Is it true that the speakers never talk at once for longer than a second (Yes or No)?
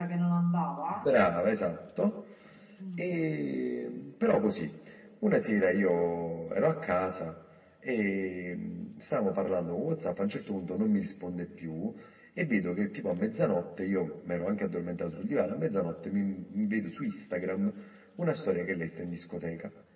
Yes